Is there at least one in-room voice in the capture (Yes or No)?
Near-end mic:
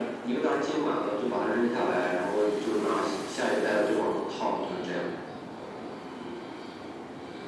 No